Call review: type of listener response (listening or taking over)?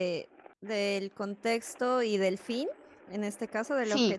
taking over